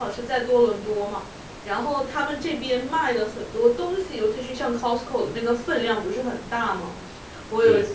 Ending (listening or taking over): listening